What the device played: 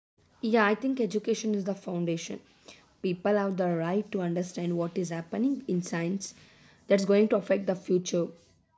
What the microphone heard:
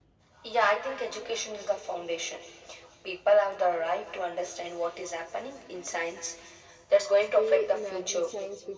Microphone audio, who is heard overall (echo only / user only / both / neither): both